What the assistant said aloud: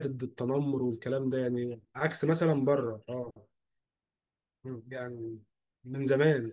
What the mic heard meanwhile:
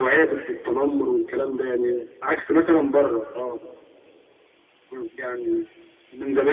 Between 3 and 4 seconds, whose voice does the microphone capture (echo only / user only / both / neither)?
echo only